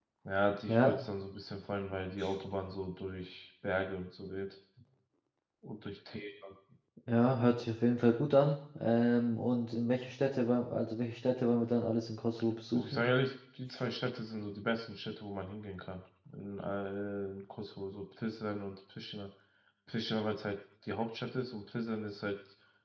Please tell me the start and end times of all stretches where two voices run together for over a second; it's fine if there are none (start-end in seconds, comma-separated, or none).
none